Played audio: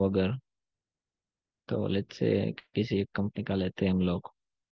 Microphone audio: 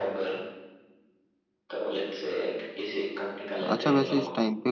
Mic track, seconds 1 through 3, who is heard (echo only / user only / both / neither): echo only